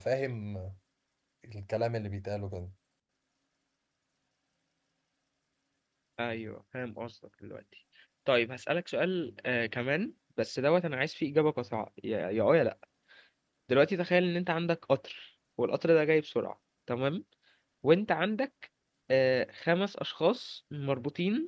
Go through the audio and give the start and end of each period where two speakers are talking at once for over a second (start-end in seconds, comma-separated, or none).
none